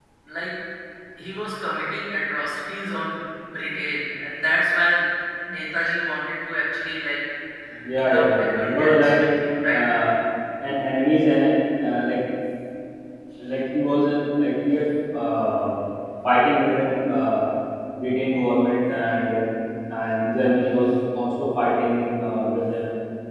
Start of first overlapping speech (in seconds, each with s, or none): 7.9 s